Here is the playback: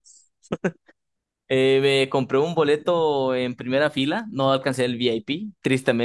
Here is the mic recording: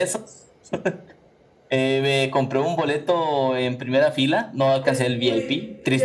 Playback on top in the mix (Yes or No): Yes